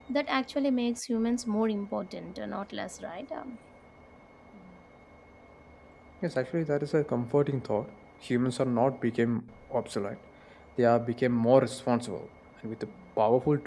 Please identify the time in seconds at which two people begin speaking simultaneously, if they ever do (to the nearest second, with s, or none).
none